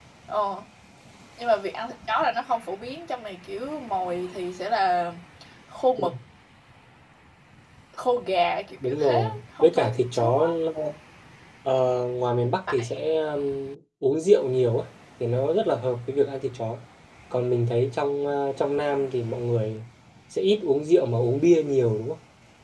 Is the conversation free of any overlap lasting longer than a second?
No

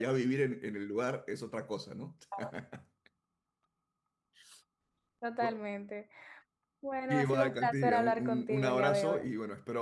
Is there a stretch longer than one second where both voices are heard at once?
Yes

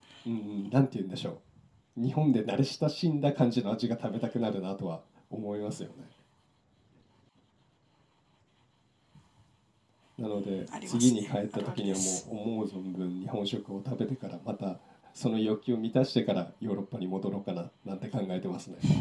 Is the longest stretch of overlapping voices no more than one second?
No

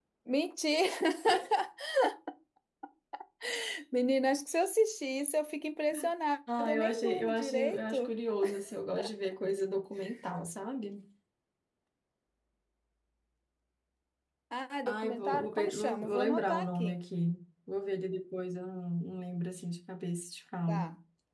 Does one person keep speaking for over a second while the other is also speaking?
Yes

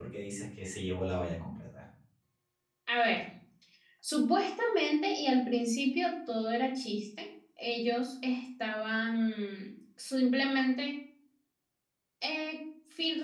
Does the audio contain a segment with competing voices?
No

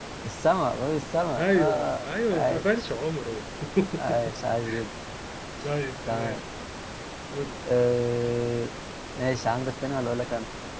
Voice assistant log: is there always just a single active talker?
No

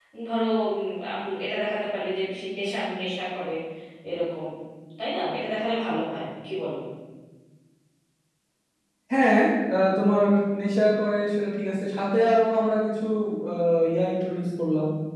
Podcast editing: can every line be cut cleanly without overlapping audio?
Yes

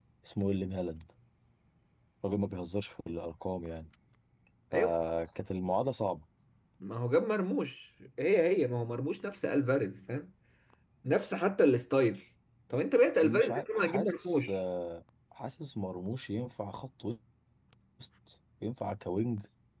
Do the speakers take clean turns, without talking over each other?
No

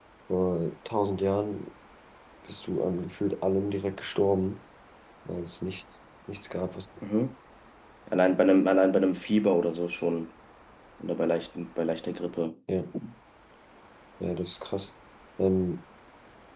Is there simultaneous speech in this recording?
No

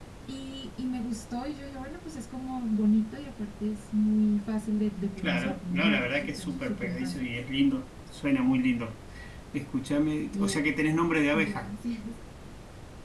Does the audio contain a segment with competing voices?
Yes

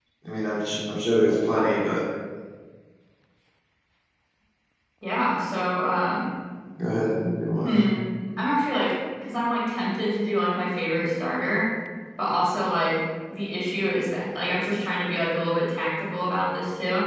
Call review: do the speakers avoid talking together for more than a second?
Yes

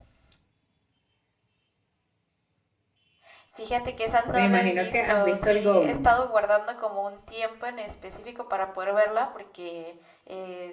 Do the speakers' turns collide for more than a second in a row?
Yes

